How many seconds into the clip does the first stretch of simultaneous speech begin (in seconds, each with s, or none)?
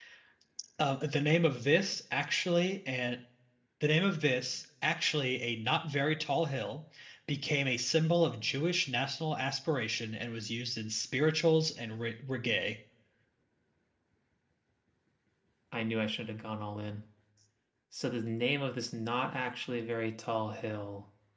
none